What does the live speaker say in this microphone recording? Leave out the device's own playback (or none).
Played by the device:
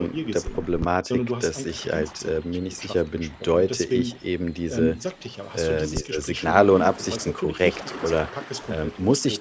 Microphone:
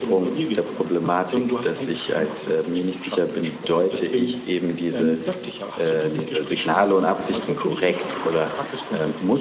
none